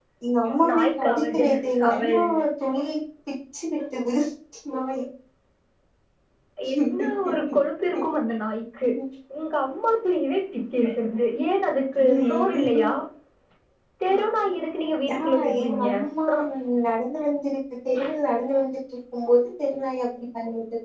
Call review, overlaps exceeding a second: present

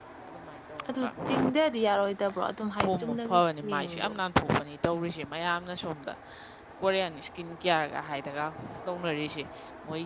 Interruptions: present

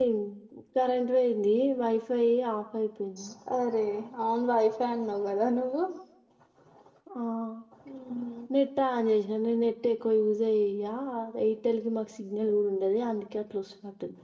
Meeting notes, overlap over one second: none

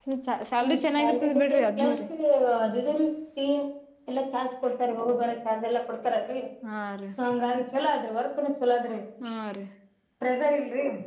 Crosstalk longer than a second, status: present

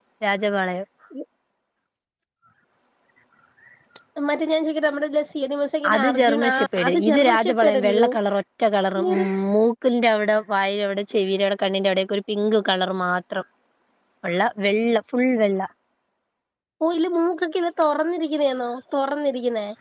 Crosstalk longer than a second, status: present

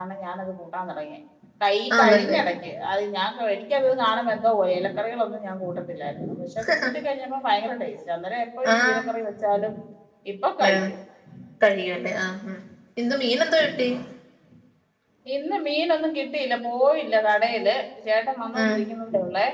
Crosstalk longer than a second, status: none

